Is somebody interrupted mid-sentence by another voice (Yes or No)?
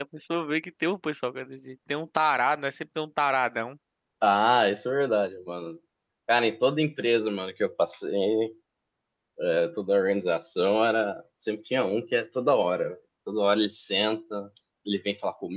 No